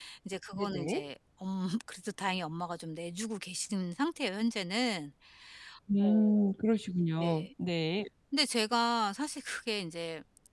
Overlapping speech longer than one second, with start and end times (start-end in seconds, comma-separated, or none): none